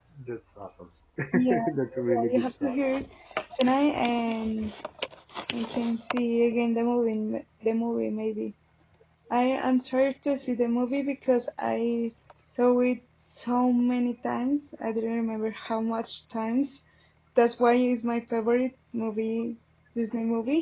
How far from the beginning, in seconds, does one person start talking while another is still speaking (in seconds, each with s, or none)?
1.3 s